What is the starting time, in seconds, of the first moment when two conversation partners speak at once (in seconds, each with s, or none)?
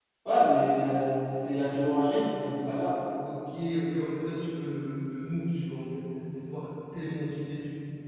none